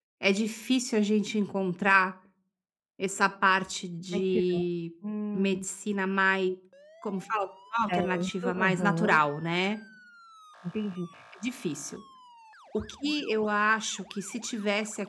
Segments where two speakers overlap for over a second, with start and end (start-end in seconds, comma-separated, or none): 7.9-9.2